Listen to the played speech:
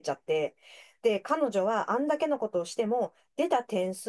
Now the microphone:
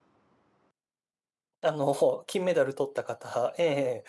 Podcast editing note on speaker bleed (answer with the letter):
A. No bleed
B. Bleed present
A